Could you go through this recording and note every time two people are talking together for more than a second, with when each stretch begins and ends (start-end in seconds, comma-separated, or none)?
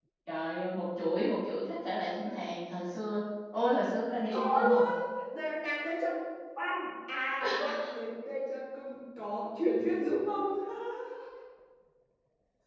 none